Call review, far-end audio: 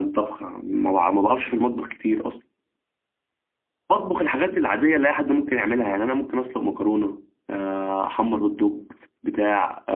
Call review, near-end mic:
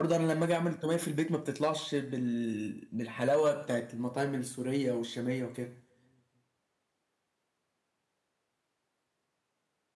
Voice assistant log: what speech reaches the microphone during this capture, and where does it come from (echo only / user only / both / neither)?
user only